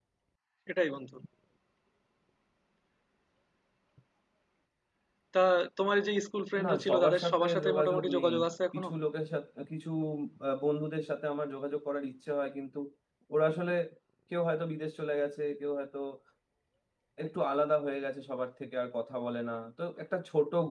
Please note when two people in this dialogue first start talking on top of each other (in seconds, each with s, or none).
6.6 s